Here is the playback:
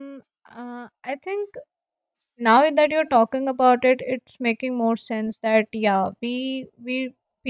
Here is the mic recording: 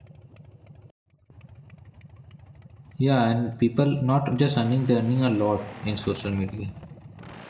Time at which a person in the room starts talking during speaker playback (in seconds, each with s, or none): 3.0 s